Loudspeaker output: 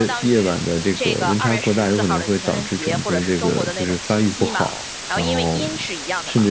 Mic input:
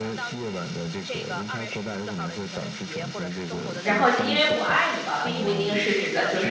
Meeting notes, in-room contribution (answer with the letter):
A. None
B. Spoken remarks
B